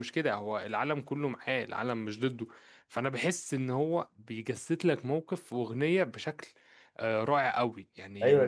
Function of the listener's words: taking over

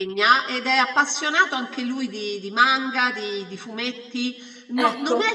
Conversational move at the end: listening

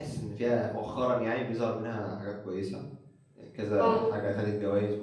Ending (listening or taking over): listening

